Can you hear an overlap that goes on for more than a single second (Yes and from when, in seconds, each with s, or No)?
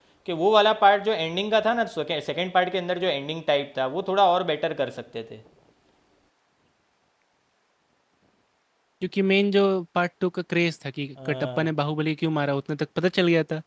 No